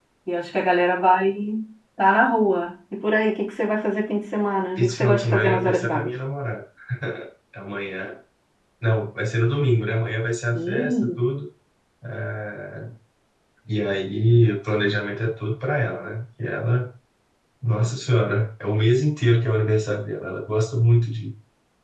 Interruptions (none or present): present